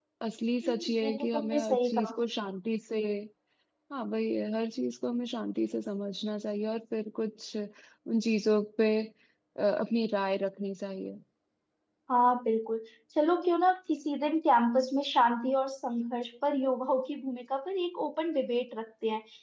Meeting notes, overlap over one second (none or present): present